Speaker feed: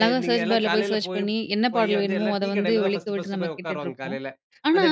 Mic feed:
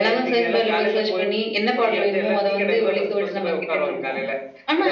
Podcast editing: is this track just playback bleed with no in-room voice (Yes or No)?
Yes